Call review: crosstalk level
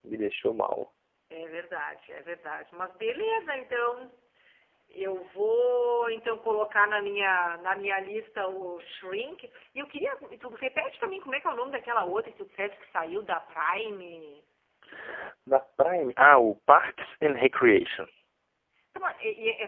none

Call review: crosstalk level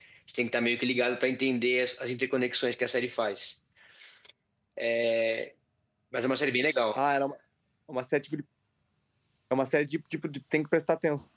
none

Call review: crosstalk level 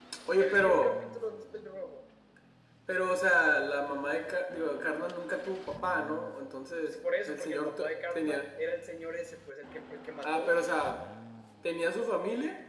present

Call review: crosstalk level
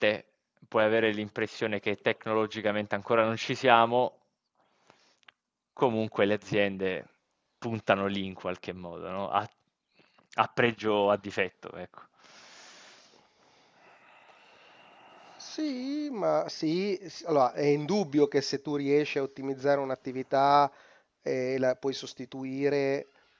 none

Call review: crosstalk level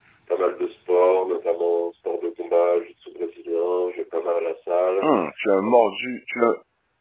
none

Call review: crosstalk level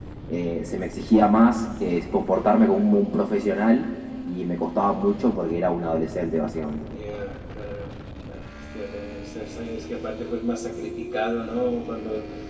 none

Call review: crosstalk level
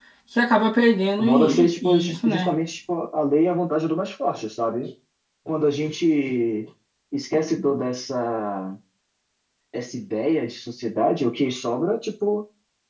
present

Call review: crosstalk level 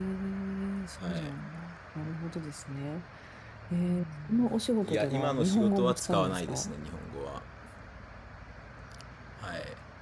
present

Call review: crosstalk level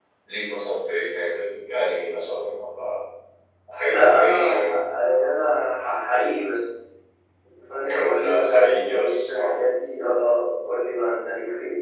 present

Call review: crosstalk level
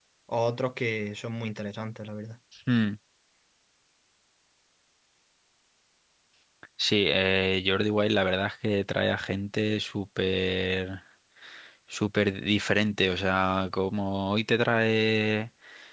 none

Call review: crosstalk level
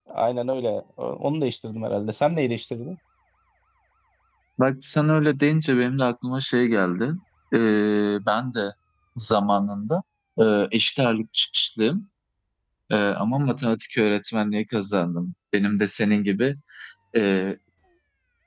none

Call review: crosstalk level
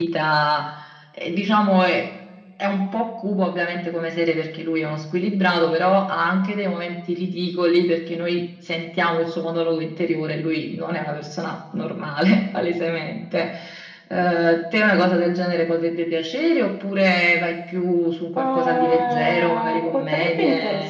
present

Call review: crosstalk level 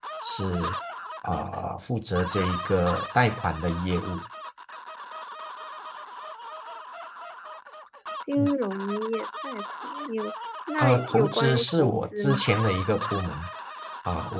present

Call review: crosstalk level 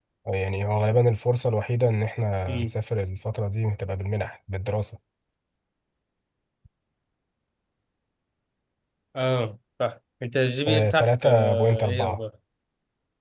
present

